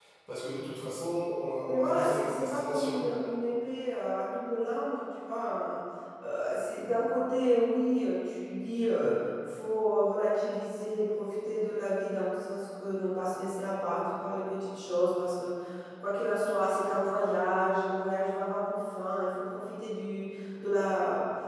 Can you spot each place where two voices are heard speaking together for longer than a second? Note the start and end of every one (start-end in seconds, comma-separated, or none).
1.7-3.0